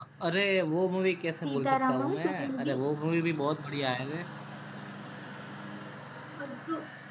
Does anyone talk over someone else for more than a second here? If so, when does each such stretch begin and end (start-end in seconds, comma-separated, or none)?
1.4-2.8